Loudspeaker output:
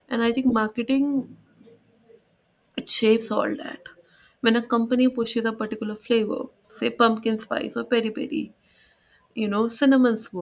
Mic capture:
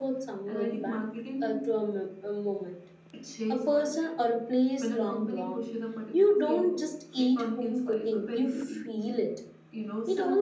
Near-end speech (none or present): present